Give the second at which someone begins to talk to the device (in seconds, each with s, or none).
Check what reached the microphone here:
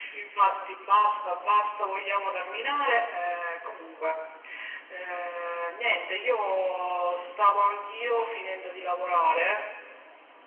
none